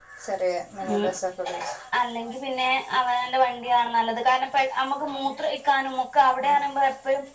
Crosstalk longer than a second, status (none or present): none